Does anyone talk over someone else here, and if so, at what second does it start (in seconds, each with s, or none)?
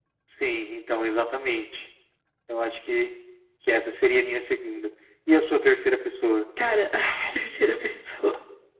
none